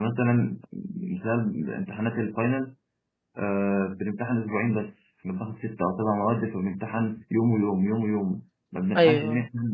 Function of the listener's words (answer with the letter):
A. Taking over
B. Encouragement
B